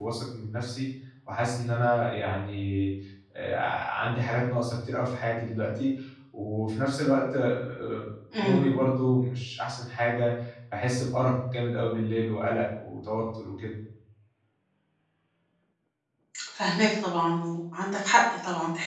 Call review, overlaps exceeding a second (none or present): none